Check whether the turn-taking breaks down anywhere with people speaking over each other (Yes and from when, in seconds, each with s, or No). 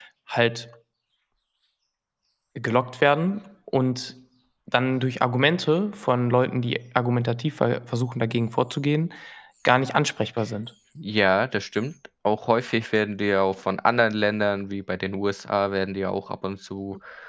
No